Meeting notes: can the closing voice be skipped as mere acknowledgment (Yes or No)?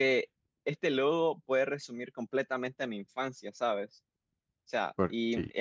Yes